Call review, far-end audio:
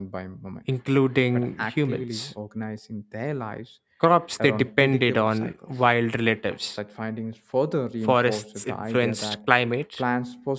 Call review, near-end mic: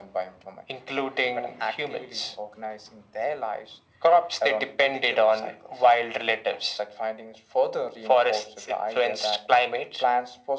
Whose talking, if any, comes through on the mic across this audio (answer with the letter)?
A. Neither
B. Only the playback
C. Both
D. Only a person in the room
B